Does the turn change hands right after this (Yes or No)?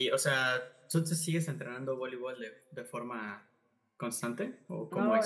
Yes